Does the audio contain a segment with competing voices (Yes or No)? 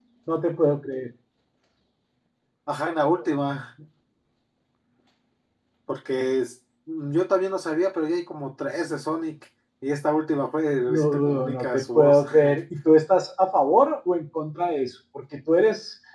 Yes